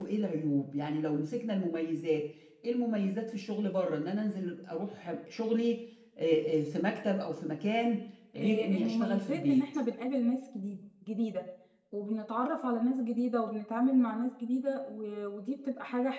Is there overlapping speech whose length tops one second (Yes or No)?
Yes